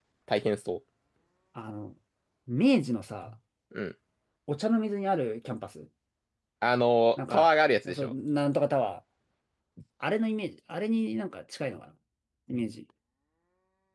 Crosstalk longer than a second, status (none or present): none